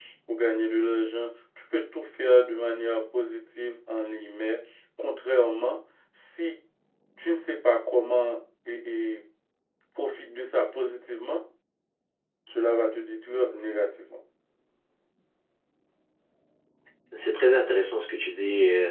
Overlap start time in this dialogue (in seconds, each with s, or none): none